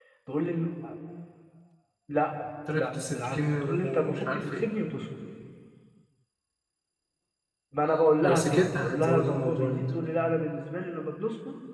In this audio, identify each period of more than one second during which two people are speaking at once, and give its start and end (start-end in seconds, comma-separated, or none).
2.7-4.7, 8.2-9.8